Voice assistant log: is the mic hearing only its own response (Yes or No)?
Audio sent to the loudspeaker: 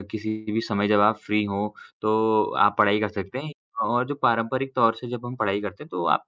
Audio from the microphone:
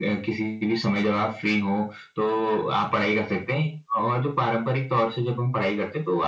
Yes